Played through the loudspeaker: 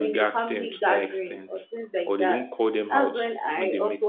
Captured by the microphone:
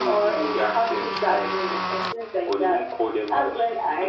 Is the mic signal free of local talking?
Yes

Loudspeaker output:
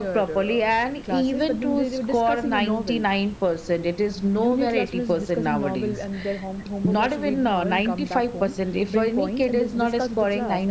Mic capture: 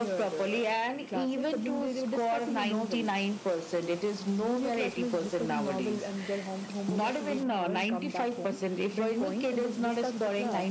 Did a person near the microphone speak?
No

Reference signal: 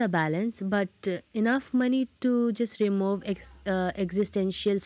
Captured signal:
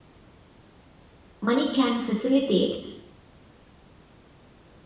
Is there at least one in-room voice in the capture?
Yes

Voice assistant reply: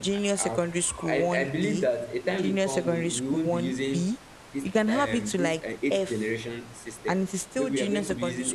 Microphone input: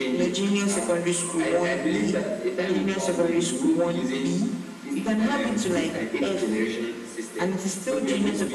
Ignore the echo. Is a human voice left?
Yes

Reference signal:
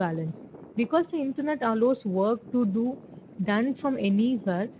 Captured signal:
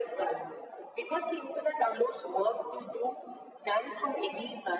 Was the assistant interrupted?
No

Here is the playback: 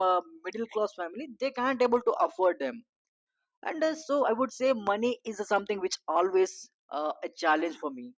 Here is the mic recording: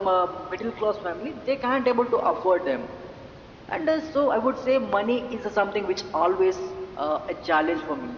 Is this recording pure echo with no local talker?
Yes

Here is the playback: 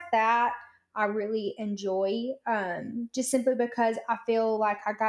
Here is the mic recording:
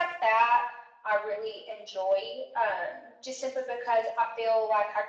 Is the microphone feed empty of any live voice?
Yes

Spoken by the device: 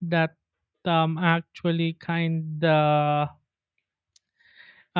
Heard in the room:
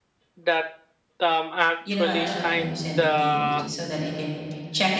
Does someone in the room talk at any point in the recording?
Yes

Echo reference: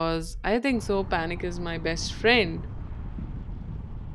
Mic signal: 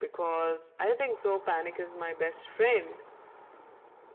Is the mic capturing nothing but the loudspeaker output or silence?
Yes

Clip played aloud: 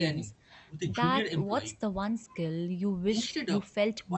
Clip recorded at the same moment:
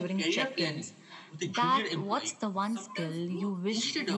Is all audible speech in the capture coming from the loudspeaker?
No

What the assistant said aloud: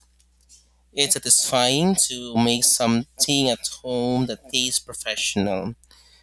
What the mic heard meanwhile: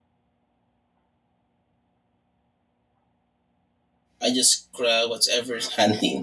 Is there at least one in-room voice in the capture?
Yes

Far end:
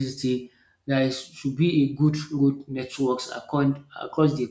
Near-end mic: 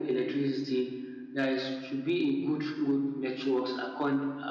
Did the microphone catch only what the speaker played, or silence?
Yes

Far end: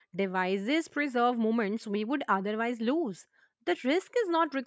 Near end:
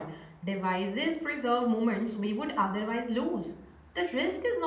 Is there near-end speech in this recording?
No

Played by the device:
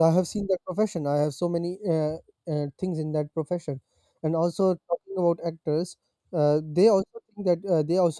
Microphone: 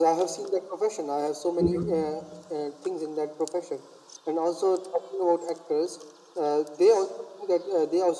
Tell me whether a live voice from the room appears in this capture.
Yes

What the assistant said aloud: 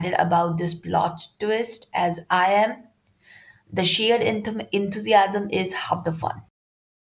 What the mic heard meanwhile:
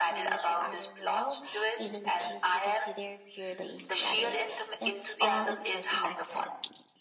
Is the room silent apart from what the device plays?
No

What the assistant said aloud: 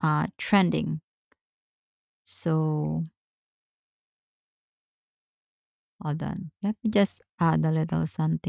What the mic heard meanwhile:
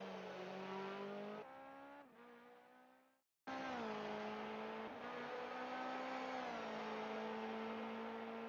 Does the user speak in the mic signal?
No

